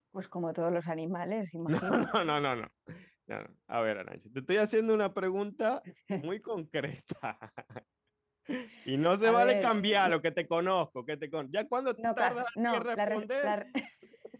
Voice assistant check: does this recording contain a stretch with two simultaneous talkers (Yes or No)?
Yes